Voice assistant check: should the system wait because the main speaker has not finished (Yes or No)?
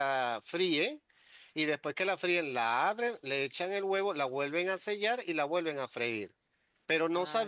Yes